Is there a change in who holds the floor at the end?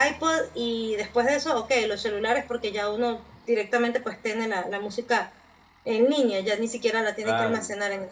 Yes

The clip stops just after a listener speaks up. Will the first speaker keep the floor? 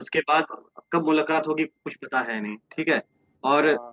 Yes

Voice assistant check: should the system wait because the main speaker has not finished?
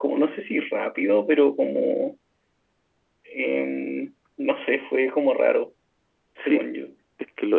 No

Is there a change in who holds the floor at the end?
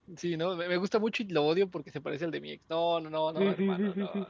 Yes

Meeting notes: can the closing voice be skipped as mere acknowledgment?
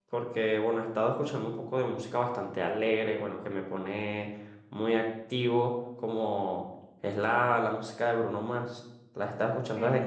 Yes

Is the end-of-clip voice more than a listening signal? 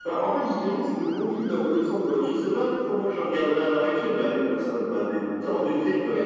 Yes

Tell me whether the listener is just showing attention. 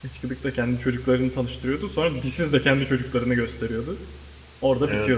No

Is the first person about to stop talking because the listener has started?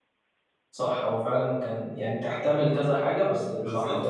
Yes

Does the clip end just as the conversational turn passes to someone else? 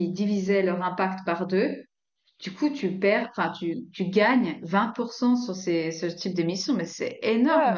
Yes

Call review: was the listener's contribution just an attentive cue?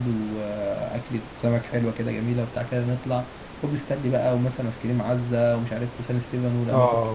No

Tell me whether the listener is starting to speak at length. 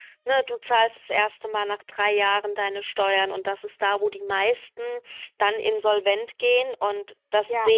Yes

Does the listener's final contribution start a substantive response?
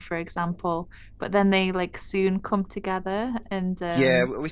Yes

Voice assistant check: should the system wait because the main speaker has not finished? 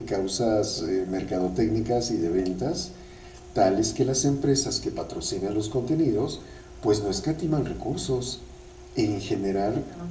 Yes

